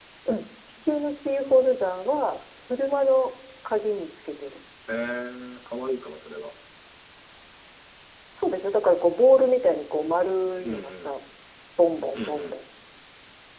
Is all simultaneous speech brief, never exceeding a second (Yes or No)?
Yes